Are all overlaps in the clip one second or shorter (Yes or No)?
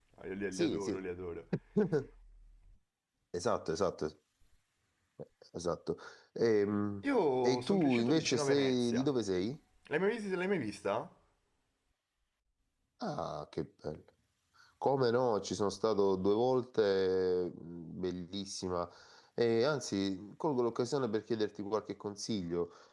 No